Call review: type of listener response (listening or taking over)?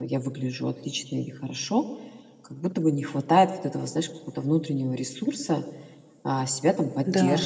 listening